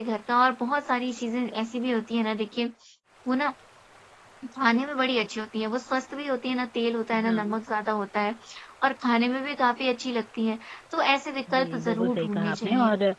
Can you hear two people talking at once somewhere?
Yes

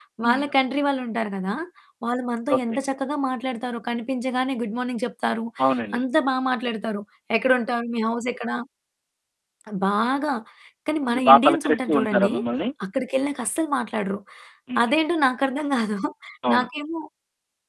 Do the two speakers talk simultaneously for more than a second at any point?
Yes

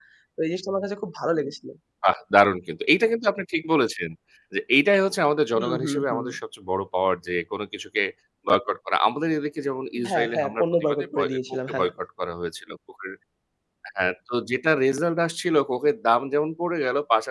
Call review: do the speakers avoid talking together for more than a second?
No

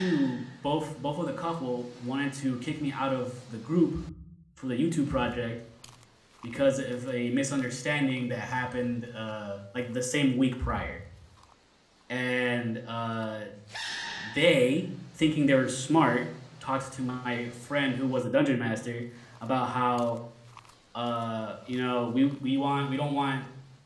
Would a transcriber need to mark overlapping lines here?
No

